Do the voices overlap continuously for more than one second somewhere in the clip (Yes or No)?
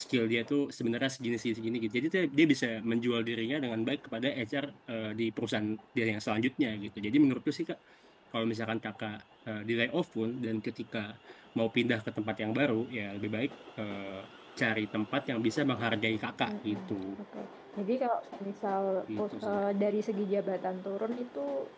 No